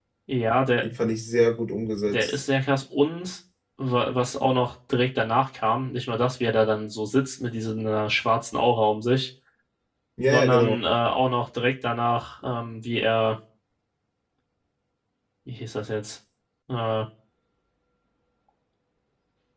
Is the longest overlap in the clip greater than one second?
No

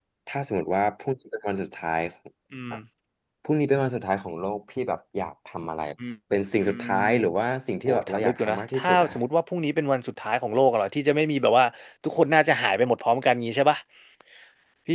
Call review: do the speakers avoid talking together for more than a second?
No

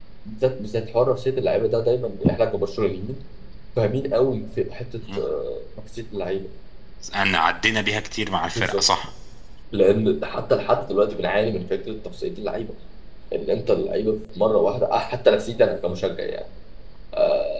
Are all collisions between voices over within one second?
Yes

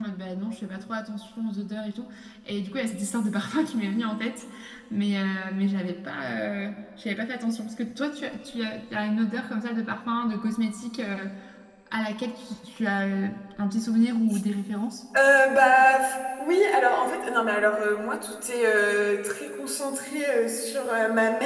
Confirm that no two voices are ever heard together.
Yes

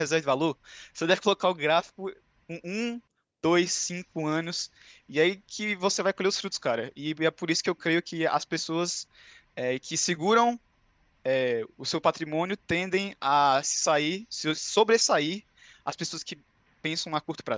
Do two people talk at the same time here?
No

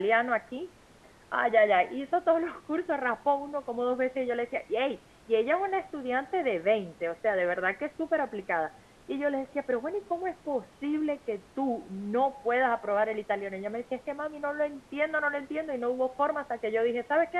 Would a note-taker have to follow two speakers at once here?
No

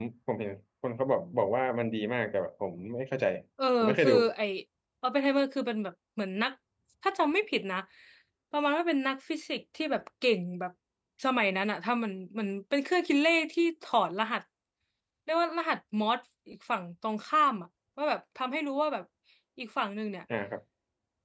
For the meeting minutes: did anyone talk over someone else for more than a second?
No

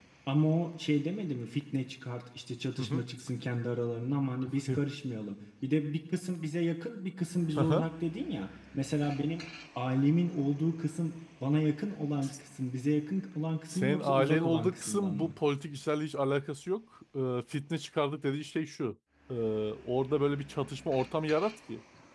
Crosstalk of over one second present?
Yes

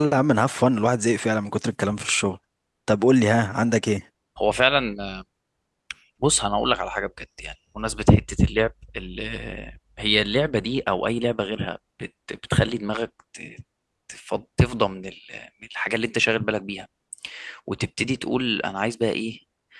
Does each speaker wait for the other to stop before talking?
Yes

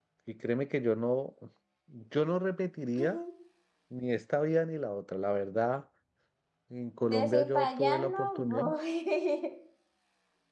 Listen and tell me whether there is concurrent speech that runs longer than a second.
Yes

